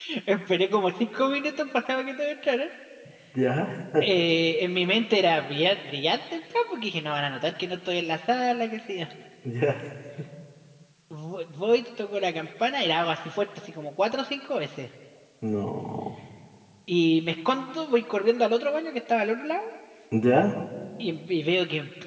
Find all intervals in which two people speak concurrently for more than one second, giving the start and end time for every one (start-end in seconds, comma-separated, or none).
none